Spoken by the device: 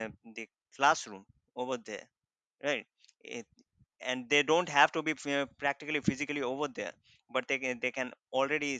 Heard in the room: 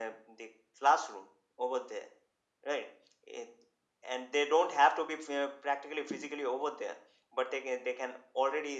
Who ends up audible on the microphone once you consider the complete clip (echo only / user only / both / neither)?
echo only